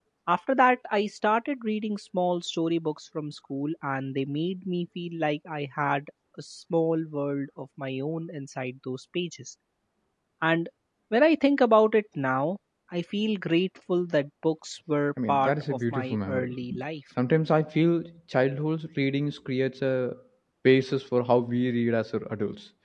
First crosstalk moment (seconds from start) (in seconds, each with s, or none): 15.2 s